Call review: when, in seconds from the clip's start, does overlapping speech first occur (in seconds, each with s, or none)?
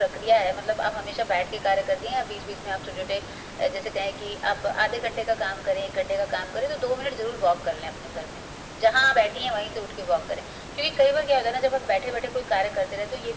none